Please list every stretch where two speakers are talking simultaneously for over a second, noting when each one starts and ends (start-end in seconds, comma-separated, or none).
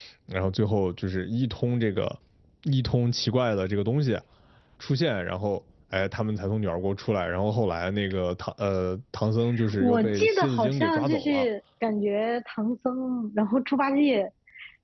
9.8-11.5